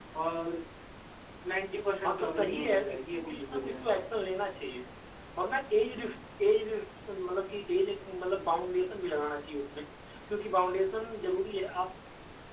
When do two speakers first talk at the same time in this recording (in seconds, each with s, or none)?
2.0 s